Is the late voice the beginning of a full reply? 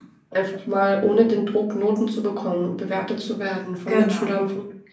No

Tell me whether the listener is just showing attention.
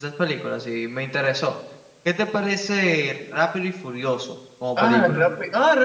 No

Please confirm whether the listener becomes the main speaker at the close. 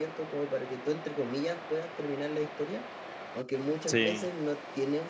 No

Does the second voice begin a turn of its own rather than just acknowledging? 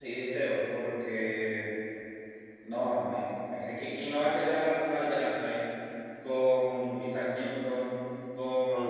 No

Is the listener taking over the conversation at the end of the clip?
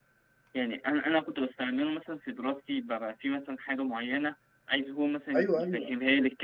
No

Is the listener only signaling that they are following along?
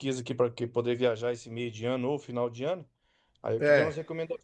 Yes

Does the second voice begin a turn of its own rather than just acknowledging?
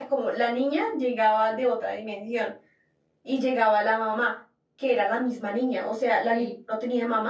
No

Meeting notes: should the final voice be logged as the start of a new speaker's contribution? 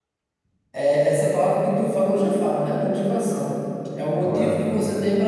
No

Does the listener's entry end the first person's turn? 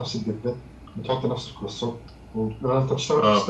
No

